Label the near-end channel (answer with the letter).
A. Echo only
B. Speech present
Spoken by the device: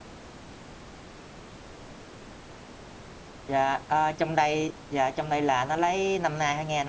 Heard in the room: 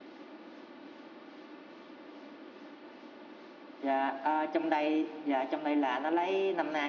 A